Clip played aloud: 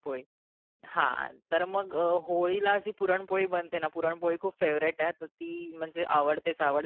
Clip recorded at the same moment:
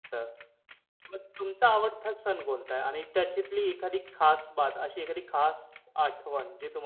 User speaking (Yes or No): Yes